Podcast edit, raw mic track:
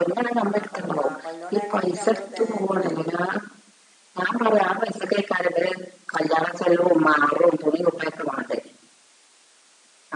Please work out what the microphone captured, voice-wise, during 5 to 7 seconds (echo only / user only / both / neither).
echo only